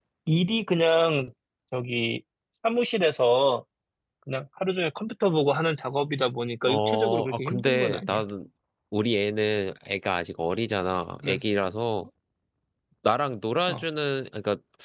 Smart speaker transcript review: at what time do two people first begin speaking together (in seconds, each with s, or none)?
6.7 s